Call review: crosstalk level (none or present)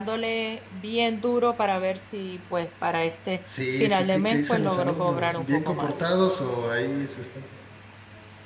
present